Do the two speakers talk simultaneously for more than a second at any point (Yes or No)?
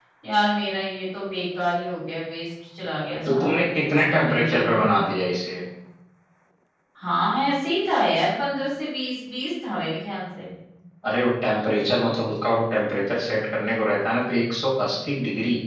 Yes